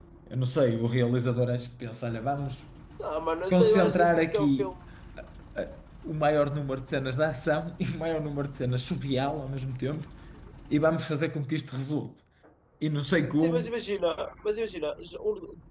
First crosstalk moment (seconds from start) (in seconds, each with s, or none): 3.5 s